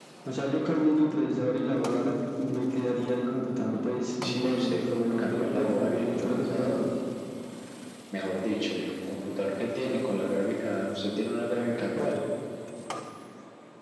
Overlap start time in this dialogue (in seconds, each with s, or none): 4.2 s